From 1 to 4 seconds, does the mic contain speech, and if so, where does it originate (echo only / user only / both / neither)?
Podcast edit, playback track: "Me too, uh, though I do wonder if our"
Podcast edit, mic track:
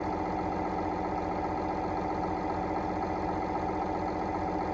neither